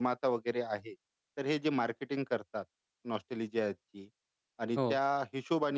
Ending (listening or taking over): listening